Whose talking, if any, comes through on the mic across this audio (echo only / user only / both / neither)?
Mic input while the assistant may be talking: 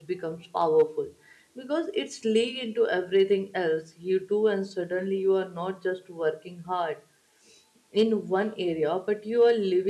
user only